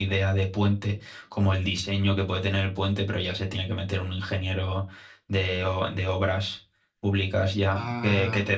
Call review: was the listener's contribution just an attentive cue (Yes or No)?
Yes